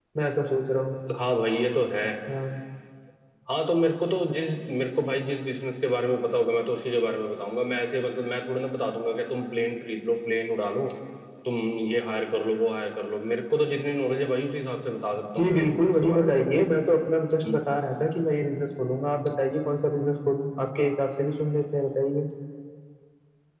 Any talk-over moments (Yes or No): Yes